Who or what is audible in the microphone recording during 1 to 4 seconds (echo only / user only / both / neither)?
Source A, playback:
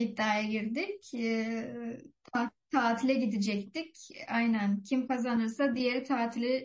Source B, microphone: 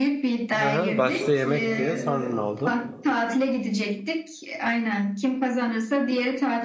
both